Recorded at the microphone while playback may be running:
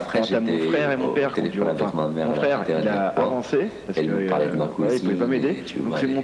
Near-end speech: none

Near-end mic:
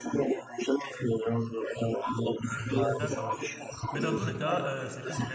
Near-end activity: present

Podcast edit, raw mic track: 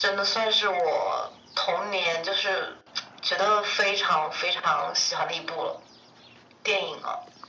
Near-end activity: none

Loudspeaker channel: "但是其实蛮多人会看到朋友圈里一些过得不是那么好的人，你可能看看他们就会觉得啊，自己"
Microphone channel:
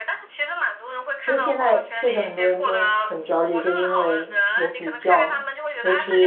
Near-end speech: present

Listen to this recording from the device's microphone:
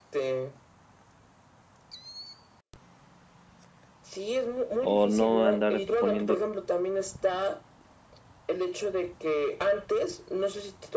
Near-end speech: present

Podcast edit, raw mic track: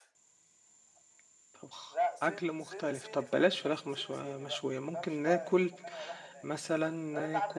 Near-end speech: present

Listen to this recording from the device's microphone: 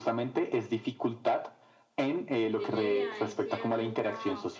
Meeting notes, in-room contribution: present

